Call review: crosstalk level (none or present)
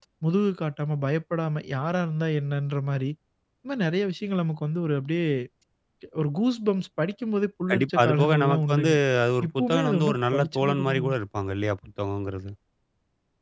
present